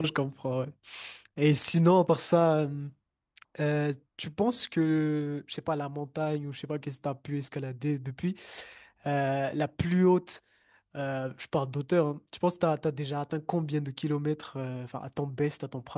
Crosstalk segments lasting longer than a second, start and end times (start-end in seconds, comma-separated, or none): none